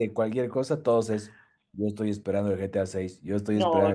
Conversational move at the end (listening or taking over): taking over